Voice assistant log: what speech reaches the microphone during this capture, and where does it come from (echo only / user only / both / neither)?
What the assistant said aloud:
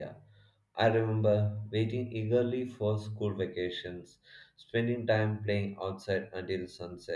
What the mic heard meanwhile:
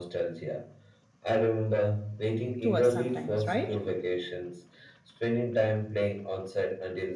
both